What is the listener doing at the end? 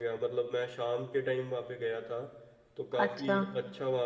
listening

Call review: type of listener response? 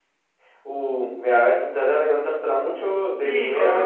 taking over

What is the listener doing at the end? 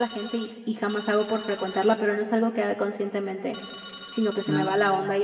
listening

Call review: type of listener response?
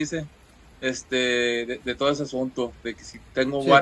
listening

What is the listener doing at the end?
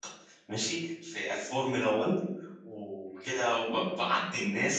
listening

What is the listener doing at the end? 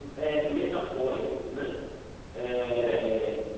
listening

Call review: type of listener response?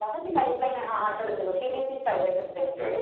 taking over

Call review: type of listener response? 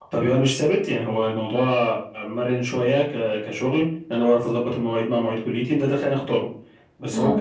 listening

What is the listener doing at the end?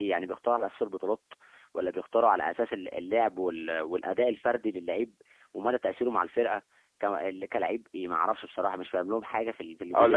taking over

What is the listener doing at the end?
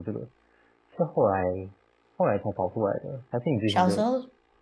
taking over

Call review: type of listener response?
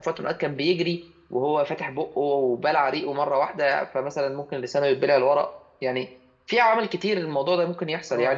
taking over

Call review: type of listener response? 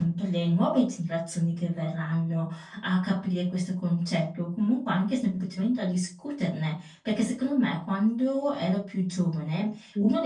listening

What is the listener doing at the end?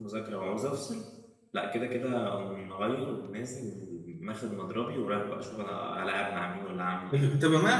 taking over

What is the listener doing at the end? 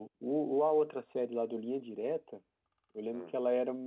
listening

